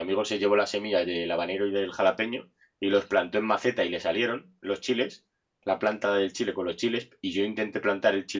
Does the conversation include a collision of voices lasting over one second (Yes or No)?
No